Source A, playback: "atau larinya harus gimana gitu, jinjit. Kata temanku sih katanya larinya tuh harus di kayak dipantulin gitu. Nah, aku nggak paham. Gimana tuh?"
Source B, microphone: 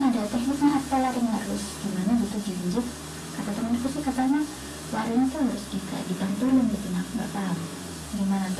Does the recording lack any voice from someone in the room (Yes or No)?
Yes